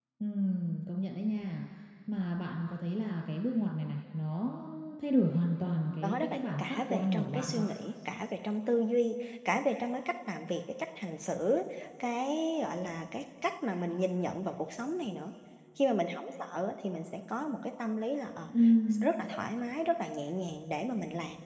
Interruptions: present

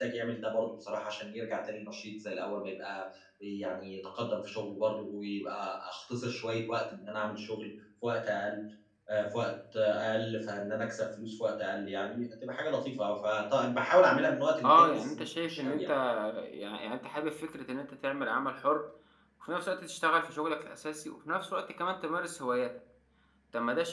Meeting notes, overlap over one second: present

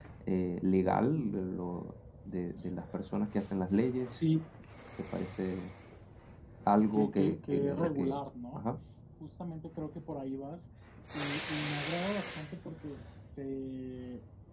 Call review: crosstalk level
present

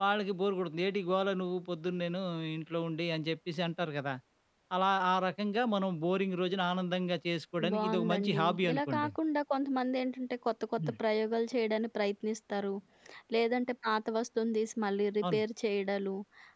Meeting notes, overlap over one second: present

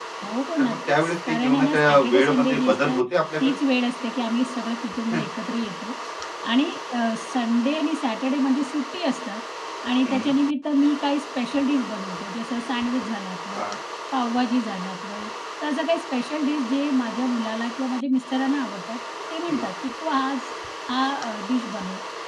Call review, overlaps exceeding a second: present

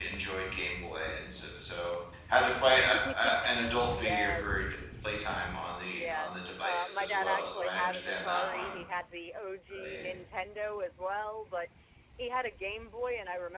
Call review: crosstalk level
present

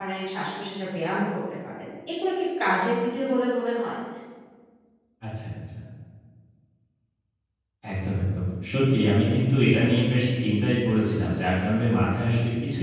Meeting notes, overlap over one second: none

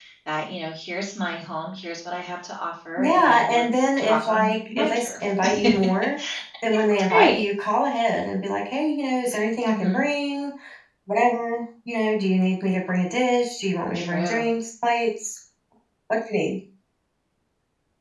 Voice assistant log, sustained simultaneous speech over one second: present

